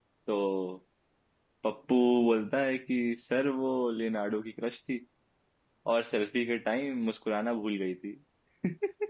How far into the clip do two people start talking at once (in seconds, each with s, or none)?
none